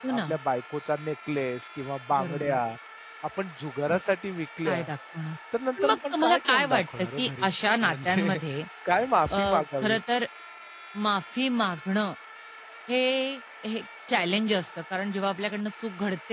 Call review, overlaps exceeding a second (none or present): present